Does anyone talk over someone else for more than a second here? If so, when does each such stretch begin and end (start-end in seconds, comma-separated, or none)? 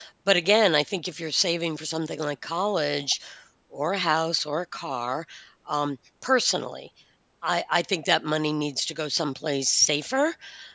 none